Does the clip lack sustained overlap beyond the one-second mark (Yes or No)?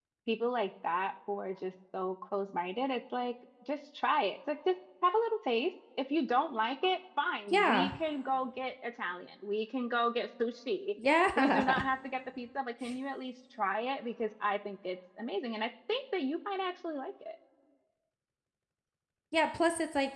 Yes